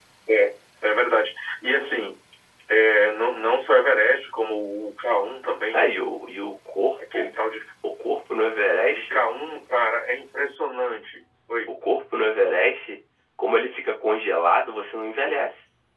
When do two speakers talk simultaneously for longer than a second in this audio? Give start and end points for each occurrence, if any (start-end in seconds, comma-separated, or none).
none